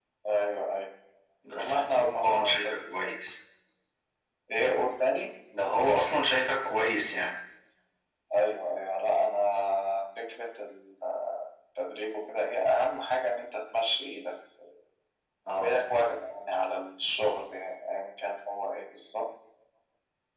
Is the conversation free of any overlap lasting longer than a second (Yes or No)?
No